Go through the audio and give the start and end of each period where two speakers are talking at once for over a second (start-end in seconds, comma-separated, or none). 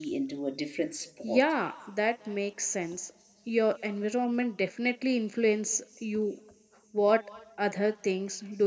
none